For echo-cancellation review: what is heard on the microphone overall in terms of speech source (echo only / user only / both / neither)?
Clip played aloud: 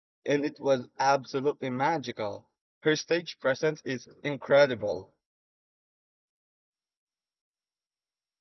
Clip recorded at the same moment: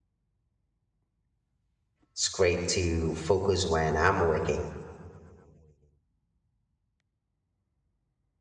user only